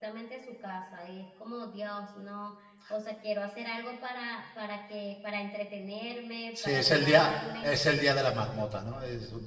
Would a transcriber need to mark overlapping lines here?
Yes, from 6.6 s

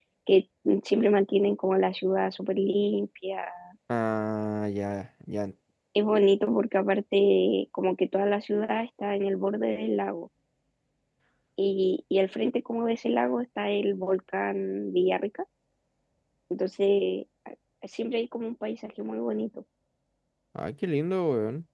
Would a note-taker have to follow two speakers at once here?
No

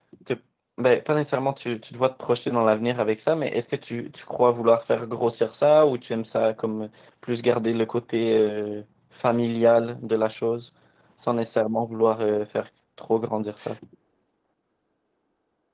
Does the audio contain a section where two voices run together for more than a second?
No

